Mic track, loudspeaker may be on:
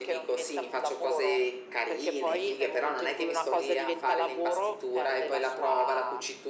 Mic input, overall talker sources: echo only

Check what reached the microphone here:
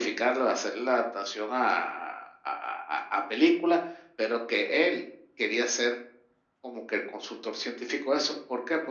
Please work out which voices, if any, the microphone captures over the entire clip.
echo only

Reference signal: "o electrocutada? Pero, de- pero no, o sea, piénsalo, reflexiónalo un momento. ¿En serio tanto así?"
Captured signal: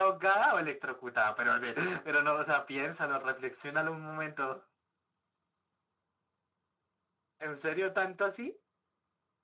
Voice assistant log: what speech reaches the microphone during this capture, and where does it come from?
echo only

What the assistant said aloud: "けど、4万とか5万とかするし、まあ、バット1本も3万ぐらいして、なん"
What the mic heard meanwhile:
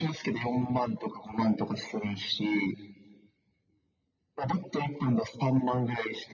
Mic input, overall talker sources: echo only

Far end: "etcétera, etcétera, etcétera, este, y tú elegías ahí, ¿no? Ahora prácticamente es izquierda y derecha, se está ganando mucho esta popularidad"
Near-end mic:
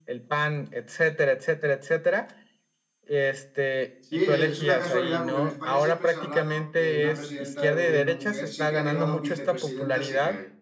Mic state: both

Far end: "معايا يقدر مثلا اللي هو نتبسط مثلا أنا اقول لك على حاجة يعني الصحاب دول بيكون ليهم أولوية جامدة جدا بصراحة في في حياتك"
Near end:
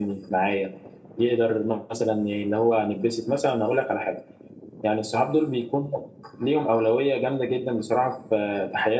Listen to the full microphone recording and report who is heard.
echo only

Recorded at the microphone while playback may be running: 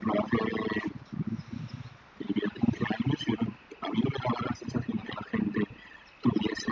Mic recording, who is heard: echo only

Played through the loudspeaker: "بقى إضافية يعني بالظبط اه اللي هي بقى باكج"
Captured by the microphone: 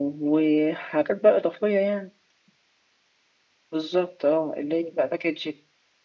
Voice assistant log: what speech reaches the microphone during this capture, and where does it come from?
echo only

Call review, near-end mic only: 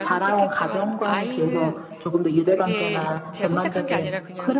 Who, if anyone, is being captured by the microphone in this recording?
both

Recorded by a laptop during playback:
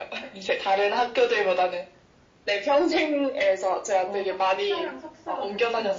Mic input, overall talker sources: both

